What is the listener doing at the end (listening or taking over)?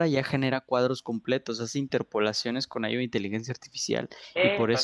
listening